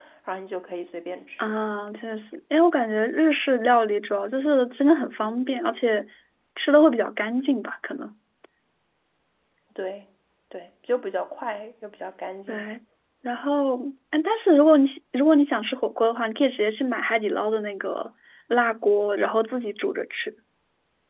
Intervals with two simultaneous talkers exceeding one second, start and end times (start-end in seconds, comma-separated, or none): none